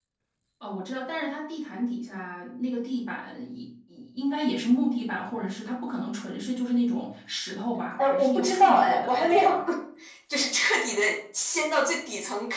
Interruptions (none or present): present